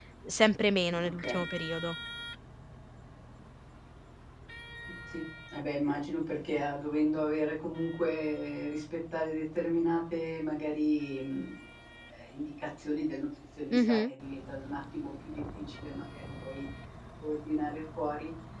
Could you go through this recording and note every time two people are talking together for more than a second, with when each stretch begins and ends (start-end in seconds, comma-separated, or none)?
none